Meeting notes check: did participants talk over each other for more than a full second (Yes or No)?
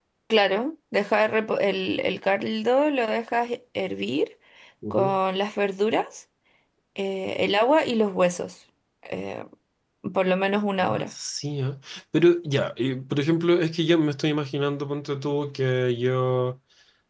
No